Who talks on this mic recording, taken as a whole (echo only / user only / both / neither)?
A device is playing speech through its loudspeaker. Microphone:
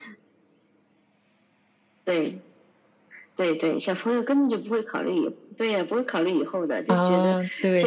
both